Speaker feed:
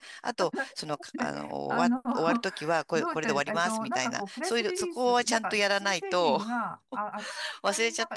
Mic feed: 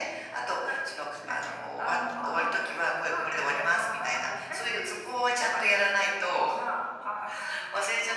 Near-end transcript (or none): none